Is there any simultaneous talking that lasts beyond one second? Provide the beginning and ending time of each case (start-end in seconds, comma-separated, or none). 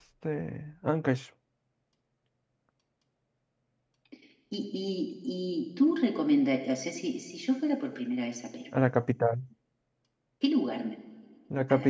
none